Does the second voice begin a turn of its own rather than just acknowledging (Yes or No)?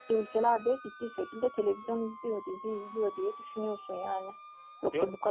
No